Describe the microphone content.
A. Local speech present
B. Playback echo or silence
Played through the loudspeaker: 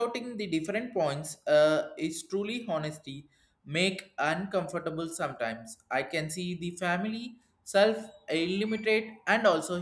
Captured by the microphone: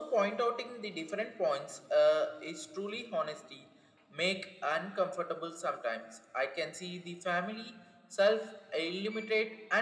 B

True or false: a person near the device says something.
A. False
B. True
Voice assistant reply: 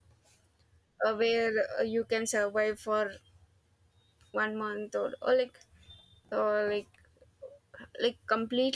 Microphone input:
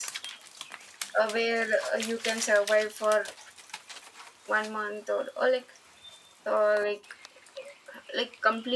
A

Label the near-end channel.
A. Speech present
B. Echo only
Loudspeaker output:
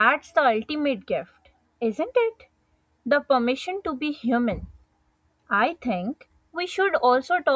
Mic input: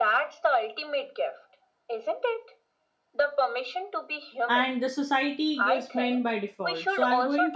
A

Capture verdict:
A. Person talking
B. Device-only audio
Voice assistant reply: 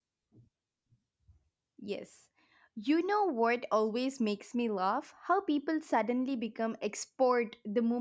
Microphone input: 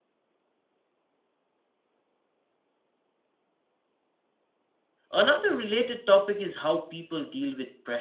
A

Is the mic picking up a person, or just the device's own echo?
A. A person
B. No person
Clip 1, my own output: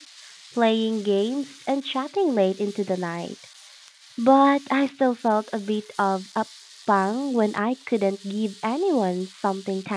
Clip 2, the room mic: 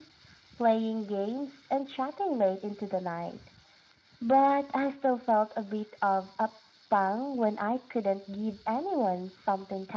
B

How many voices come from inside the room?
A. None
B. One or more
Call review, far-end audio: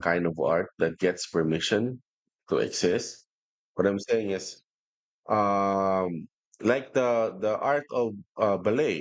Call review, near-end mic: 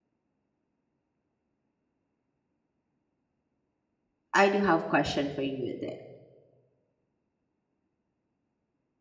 B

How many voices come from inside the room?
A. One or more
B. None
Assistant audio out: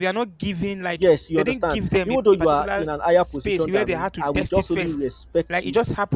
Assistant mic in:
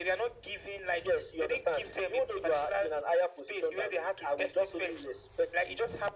B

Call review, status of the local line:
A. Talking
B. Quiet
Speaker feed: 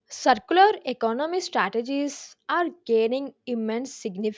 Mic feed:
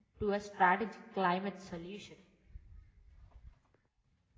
A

